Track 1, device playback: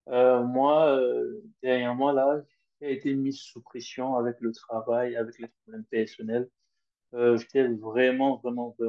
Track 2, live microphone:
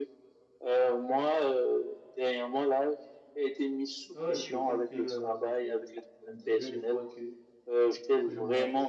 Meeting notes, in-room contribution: present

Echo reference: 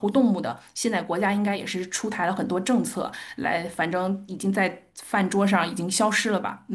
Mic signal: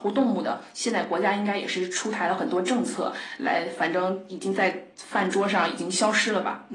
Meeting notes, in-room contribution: none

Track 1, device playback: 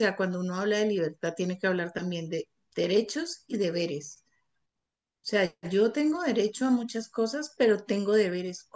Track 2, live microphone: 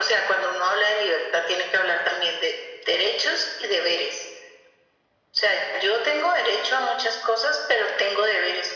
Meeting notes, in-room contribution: none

